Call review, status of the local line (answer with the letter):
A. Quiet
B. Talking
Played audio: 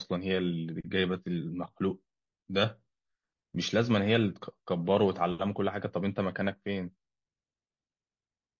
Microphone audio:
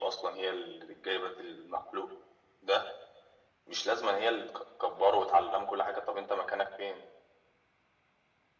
A